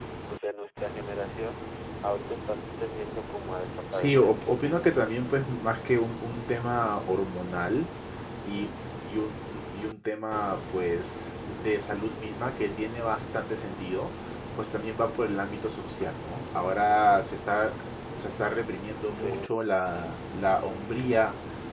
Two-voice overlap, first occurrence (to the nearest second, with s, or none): 4 s